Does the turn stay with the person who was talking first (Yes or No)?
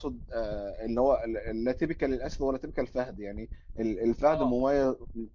Yes